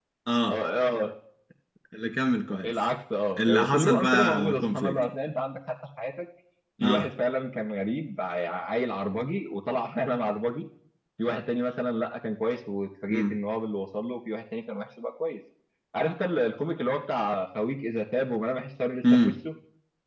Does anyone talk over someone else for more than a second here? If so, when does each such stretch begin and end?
3.4-5.0

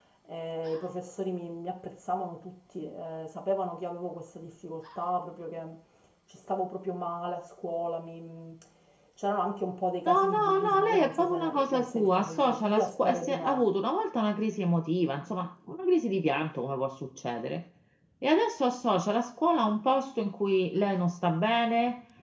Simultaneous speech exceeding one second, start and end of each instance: 10.0-13.6

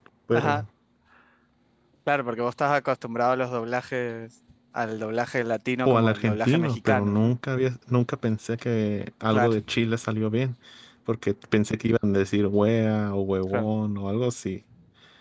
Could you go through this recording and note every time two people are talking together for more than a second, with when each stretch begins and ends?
5.8-7.3

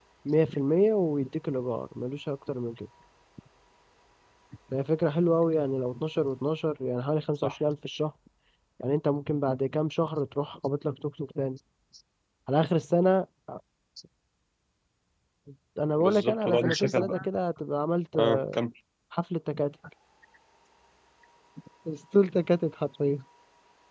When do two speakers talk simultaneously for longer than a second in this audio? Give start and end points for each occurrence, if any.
16.0-17.2

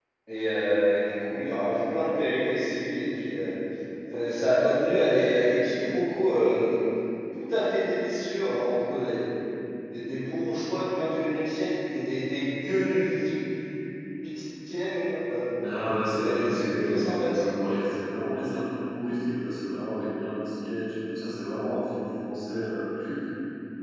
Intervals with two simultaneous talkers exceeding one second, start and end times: 16.0-17.8

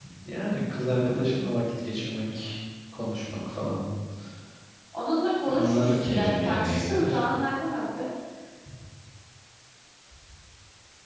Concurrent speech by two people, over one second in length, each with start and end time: 5.5-7.2

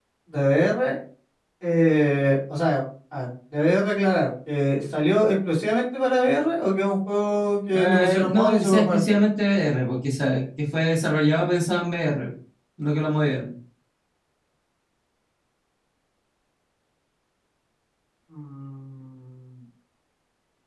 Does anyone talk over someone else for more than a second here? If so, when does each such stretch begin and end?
7.7-9.2

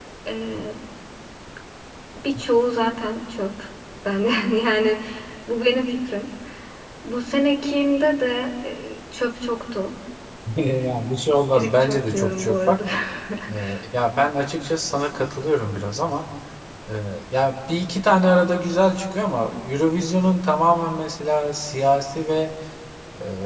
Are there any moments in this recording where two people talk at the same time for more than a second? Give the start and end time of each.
11.5-12.8

